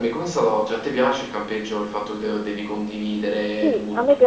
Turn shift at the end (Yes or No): Yes